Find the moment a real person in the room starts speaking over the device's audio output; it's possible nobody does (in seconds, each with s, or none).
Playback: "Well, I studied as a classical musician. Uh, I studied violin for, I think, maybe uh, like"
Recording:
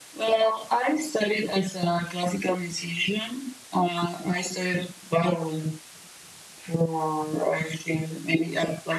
none